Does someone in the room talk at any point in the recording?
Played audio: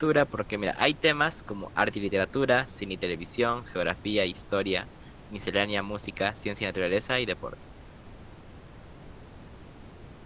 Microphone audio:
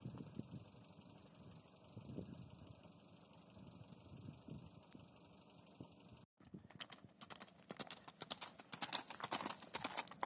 No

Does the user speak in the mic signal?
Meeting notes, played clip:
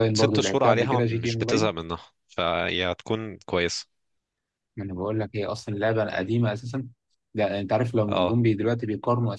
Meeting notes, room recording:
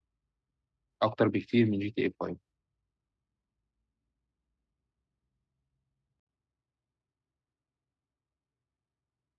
Yes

